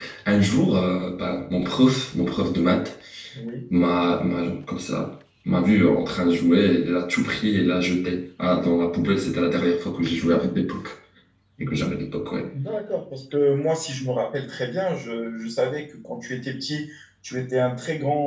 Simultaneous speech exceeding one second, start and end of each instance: none

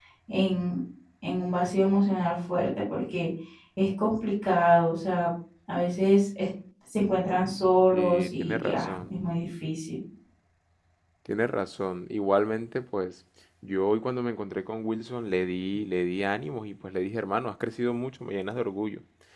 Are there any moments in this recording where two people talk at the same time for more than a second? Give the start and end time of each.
7.9-9.1

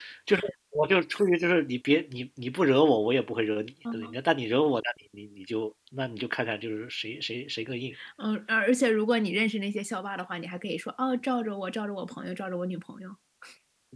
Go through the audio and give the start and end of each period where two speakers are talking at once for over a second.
none

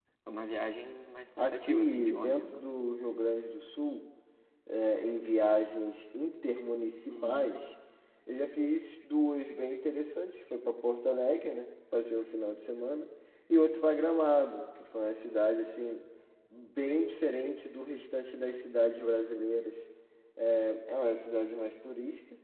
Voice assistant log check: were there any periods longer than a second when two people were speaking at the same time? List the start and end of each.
1.4-2.6

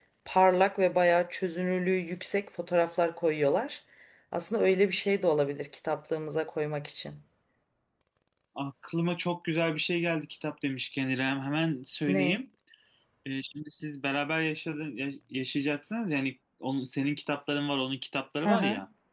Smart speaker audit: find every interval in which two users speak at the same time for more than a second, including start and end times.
none

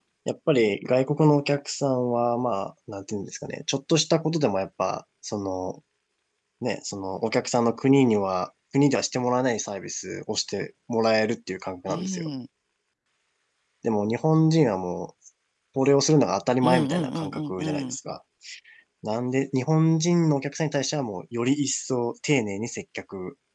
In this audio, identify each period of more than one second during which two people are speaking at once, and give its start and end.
16.6-18.0

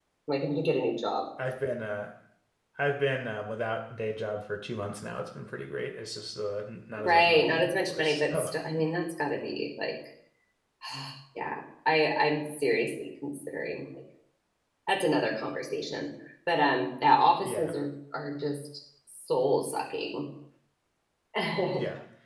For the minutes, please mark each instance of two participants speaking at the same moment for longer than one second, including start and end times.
7.0-8.5

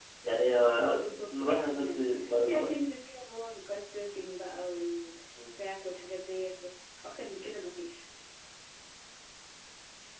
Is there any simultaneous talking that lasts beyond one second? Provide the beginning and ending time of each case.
0.8-2.7

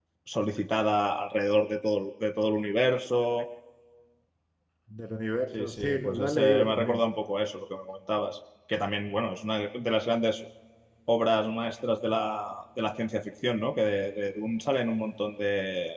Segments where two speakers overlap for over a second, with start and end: 5.6-7.0

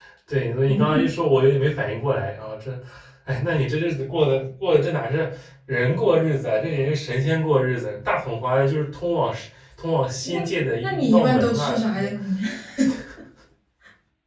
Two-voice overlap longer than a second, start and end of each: 10.8-12.1

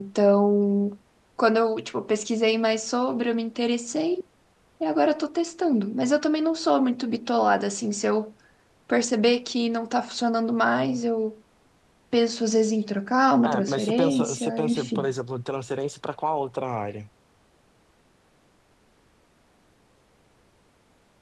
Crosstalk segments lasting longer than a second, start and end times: 13.4-15.1

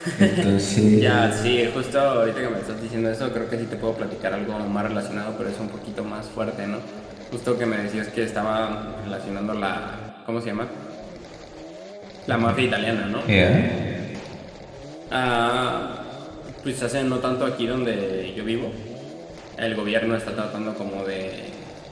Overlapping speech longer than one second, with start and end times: none

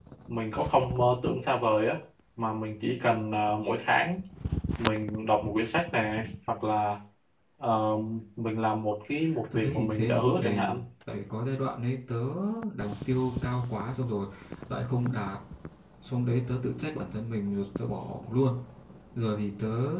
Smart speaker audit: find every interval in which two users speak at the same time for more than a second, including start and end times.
9.5-10.8

